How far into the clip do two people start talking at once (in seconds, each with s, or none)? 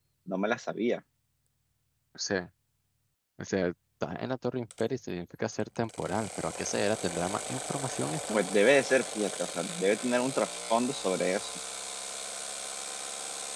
none